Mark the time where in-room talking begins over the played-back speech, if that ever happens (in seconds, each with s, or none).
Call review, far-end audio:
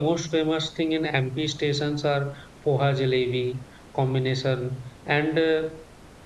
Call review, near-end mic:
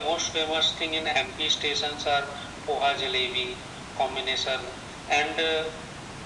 none